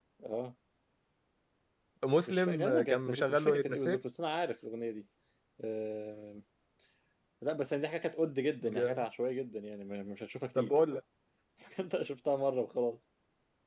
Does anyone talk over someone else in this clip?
Yes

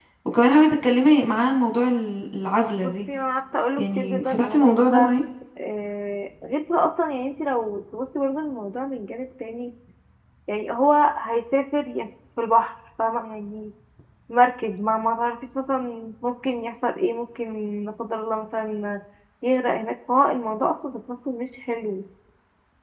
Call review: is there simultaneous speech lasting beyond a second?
Yes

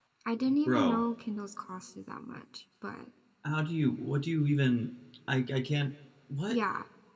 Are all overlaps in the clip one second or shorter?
Yes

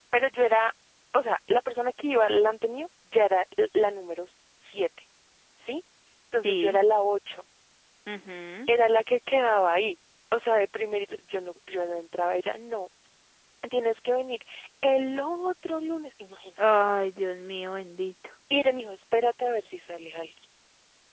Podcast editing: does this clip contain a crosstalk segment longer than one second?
No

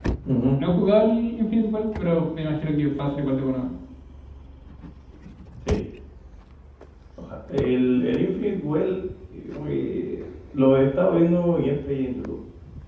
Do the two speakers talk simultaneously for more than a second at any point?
No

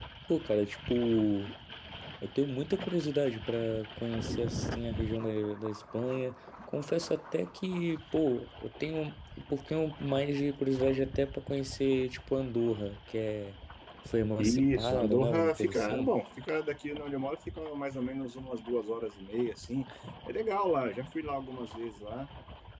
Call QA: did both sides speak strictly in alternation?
No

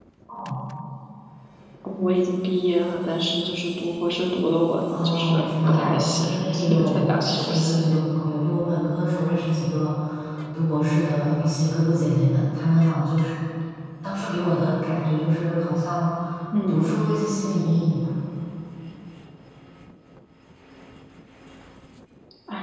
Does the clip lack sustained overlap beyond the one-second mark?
No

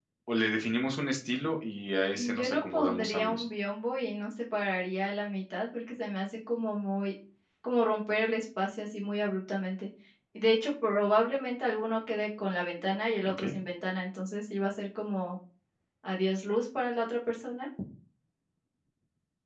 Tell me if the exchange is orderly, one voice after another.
No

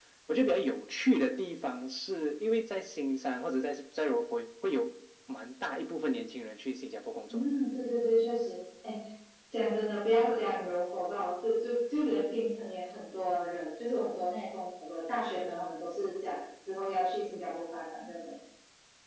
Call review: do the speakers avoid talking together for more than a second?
Yes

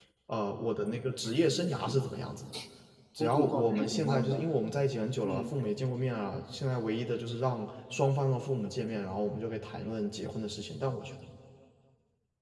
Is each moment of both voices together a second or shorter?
No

